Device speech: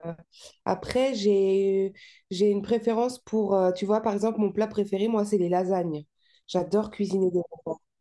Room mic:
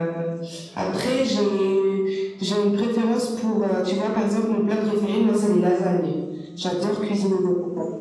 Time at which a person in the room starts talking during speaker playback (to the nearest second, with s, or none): none